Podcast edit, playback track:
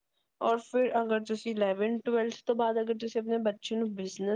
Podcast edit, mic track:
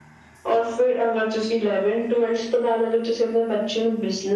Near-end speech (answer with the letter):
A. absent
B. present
A